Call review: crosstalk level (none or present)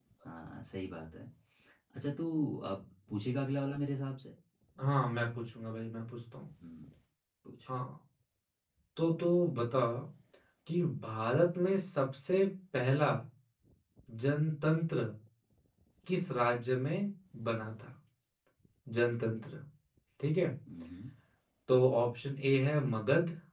none